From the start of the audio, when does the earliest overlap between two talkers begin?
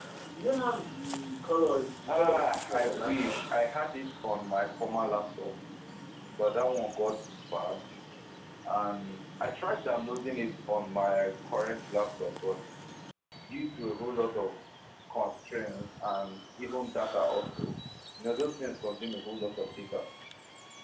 2 s

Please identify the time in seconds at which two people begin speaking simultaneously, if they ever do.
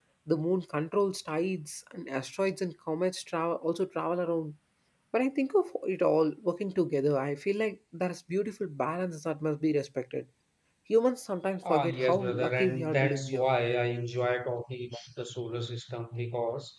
12 s

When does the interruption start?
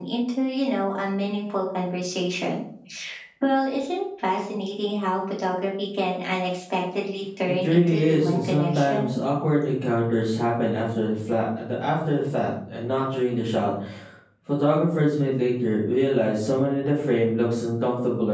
8 s

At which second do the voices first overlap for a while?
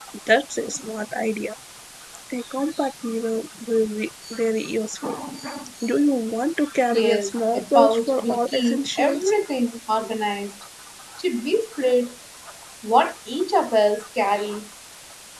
7 s

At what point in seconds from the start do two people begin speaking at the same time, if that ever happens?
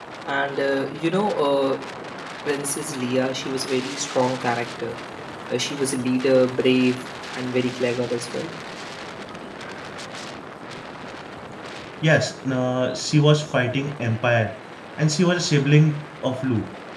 none

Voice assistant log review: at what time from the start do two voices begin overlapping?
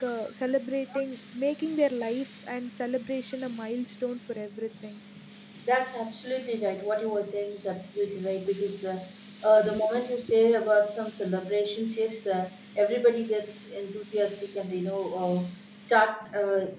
none

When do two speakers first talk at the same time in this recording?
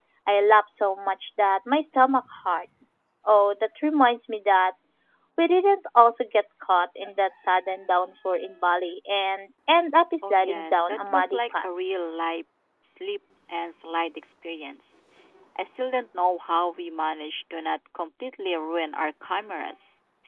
10 s

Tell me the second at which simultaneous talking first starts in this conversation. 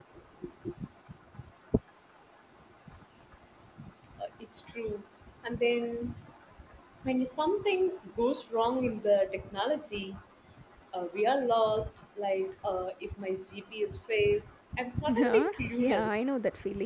15 s

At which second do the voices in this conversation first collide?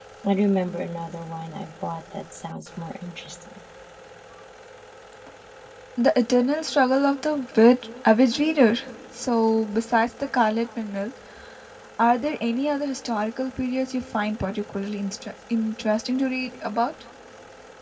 none

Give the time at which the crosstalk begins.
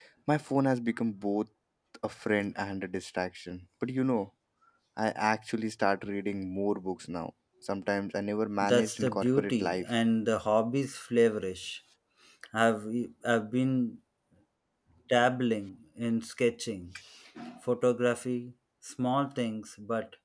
9 s

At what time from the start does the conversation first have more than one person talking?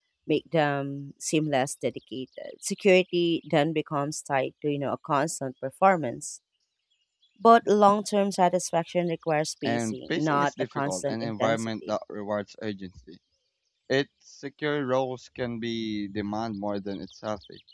10 s

